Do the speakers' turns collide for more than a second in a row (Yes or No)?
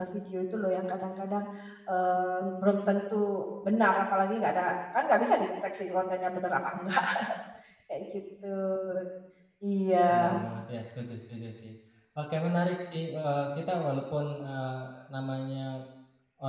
No